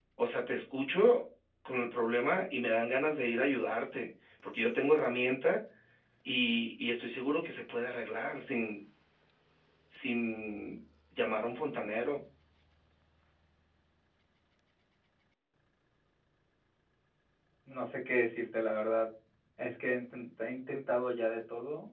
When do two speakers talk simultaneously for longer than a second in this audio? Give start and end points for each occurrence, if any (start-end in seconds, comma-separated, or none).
none